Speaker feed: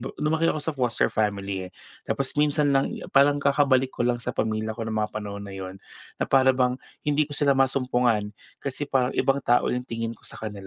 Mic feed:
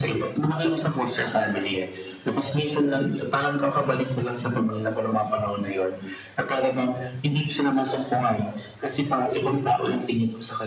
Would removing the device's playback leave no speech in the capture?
Yes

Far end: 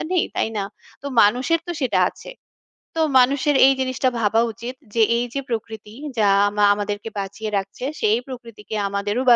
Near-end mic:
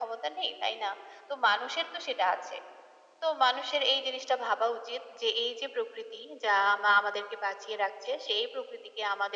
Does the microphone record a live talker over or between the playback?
No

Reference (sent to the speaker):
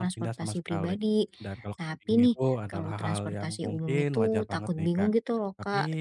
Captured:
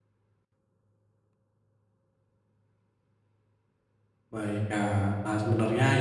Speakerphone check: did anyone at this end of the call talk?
Yes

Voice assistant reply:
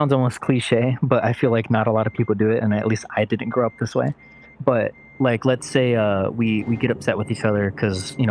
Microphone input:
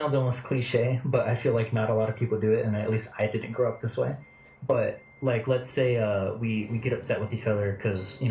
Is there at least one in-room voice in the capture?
No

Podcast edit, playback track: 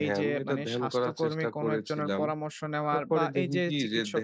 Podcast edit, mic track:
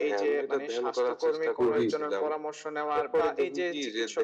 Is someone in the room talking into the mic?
Yes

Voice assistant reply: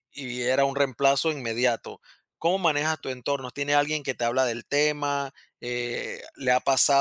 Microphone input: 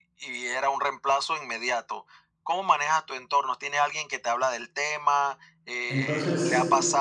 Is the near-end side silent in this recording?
No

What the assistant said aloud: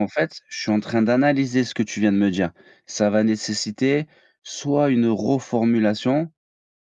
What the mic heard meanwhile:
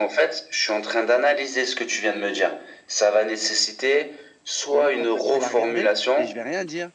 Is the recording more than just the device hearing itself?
Yes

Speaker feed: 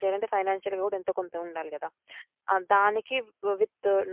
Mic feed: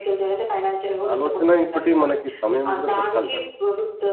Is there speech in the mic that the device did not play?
Yes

